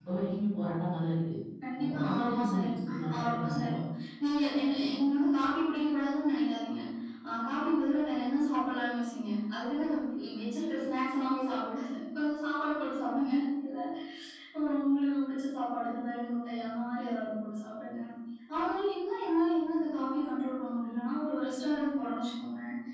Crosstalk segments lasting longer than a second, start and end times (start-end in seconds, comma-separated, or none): 1.8-3.8